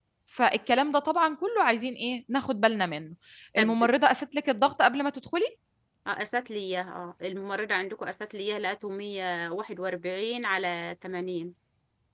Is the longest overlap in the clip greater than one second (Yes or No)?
No